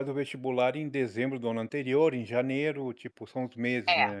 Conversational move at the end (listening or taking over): taking over